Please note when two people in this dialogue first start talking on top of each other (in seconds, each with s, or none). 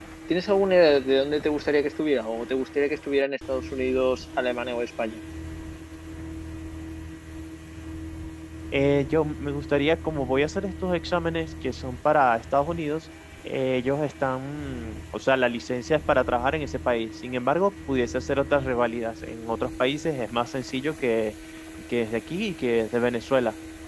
none